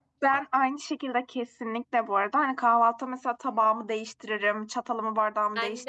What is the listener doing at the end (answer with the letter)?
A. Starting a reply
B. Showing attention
B